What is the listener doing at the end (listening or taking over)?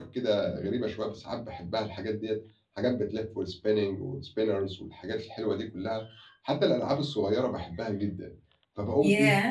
listening